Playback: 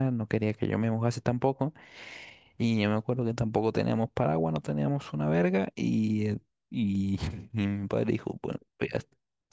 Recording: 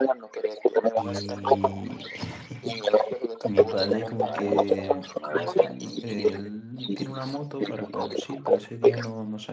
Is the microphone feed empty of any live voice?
No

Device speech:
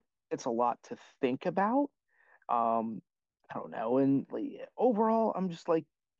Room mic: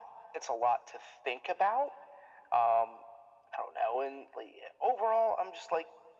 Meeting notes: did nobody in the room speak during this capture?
Yes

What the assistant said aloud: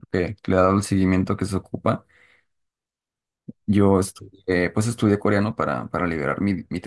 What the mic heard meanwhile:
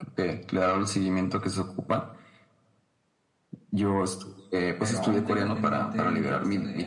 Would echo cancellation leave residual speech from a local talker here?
Yes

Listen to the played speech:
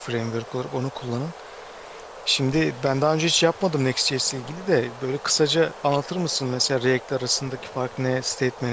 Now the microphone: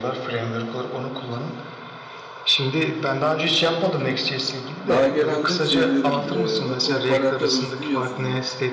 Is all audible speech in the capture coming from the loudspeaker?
No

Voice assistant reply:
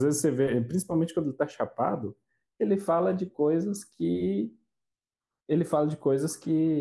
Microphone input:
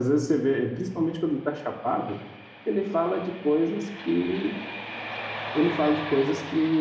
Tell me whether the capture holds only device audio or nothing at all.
Yes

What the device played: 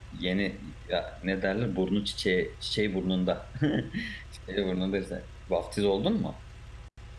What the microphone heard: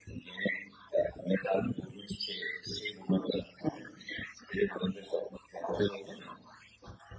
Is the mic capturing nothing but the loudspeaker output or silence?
Yes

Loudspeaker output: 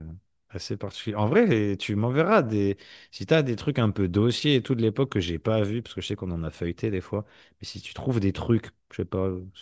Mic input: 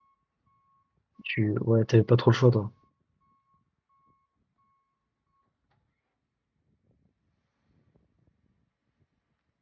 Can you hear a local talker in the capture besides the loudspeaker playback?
Yes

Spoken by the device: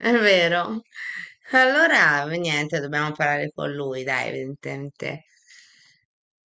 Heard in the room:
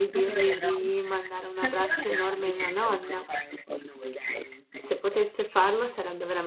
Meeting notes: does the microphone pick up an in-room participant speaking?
Yes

